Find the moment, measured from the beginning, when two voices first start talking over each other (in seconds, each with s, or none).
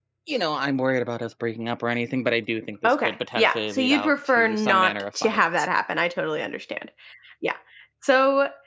2.8 s